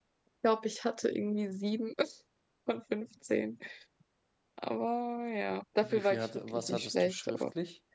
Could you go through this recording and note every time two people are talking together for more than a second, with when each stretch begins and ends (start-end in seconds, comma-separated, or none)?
5.8-7.4